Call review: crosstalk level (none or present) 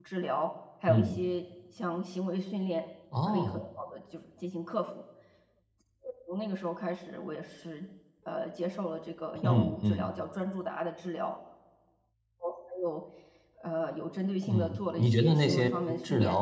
present